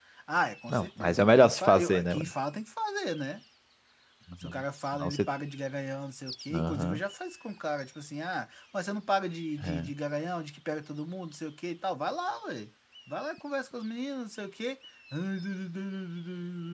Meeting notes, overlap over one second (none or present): present